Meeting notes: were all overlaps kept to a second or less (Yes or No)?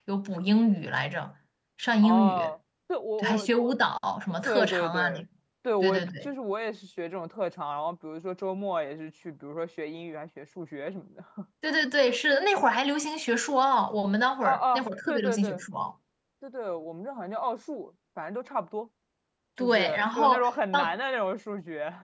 No